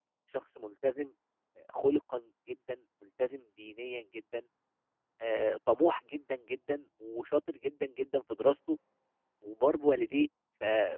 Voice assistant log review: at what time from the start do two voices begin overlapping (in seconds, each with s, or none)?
none